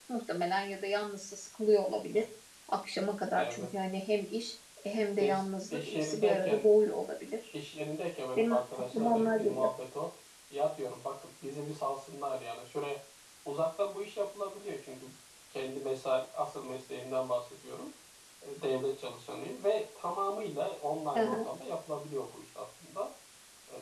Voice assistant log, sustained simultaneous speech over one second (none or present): present